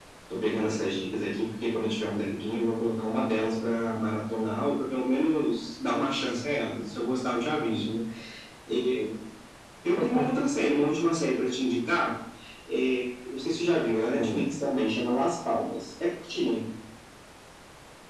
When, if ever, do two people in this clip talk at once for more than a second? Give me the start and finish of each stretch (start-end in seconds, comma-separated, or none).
none